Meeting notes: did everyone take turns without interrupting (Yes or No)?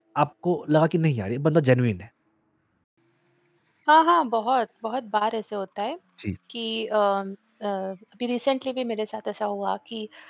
Yes